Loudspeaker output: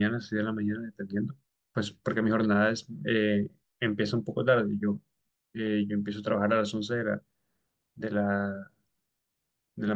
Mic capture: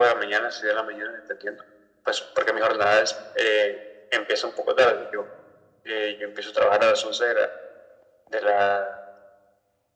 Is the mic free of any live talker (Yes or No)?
Yes